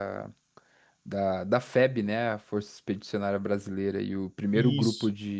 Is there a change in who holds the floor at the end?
No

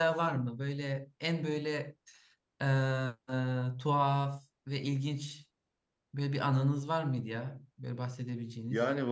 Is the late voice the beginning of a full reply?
Yes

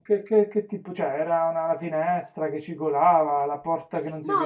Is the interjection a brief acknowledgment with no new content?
No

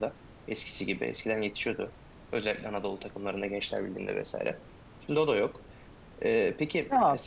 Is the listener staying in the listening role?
No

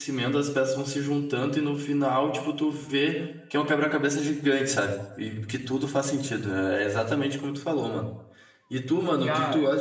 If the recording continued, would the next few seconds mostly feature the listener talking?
No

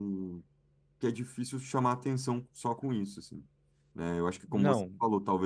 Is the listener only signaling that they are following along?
Yes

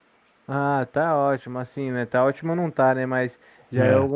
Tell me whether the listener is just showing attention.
Yes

